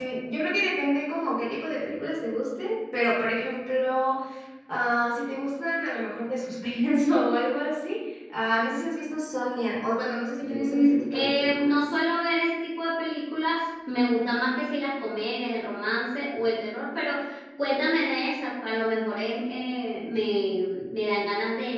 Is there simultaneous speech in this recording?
Yes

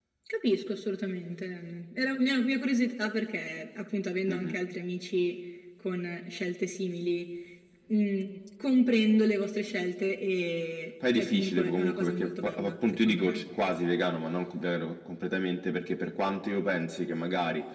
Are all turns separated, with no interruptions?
No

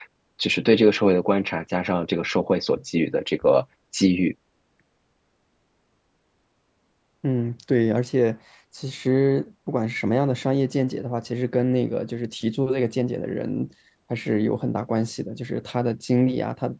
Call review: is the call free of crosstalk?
Yes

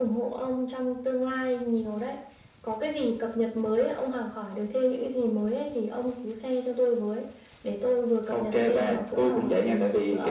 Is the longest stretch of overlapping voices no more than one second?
No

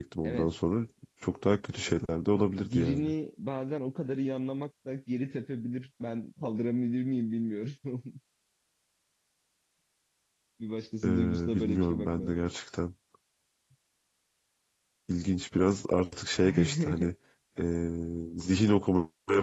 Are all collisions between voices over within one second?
No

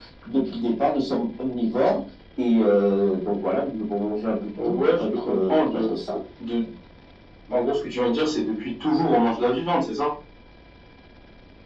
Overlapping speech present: Yes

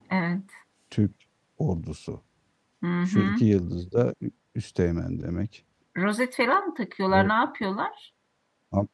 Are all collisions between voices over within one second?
Yes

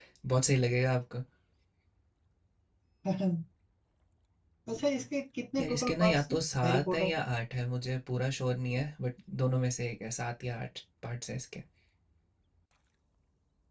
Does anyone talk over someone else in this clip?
Yes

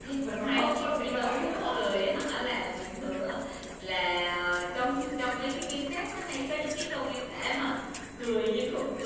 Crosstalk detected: Yes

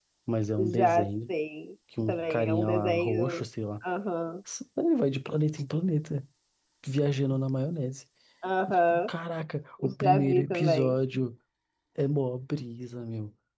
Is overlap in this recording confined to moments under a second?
No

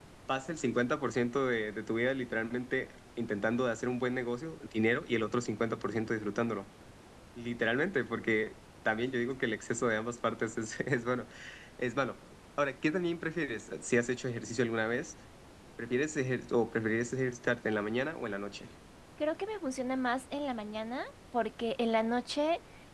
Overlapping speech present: No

